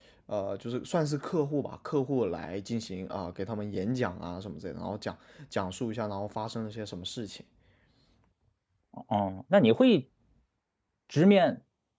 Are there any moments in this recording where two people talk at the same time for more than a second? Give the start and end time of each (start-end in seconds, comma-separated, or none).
none